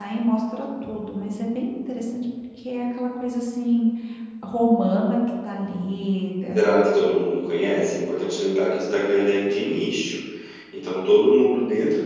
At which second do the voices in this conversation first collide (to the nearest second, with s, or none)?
none